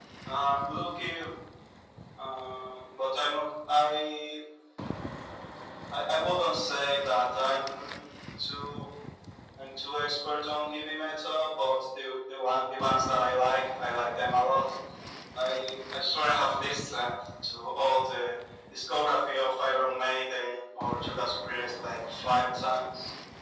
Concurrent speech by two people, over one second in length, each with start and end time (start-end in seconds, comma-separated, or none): none